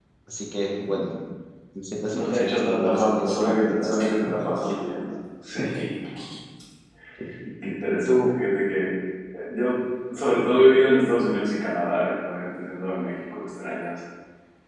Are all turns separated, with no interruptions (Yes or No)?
No